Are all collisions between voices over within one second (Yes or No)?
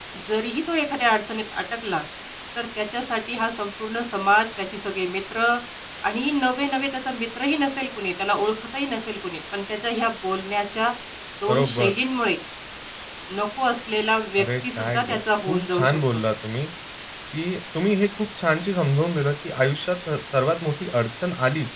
No